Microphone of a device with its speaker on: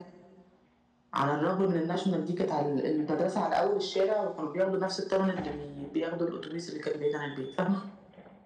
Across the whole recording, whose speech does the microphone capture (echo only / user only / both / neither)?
echo only